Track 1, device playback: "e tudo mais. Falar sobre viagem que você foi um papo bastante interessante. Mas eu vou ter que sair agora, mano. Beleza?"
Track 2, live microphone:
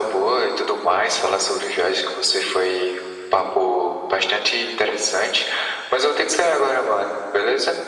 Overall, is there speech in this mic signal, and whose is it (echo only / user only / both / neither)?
echo only